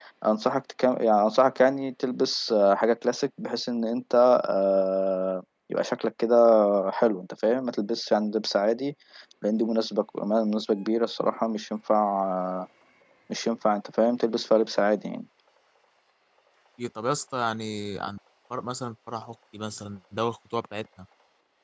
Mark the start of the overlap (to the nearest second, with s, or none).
none